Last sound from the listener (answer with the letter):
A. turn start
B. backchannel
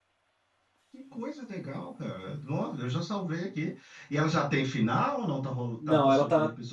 A